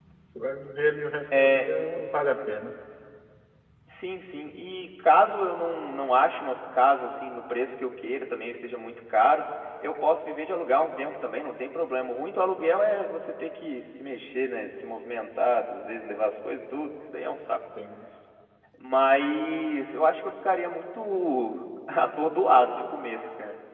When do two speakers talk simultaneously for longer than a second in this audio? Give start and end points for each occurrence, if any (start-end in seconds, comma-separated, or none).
none